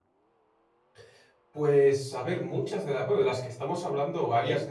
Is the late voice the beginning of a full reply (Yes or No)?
No